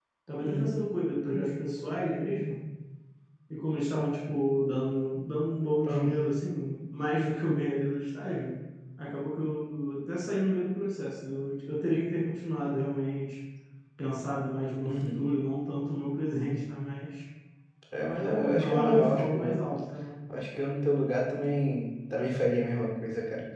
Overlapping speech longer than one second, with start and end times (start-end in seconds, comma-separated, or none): 18.2-19.6